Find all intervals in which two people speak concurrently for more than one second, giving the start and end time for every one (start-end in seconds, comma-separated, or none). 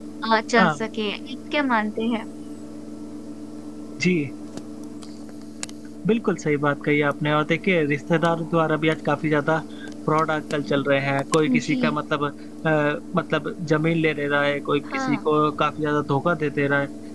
none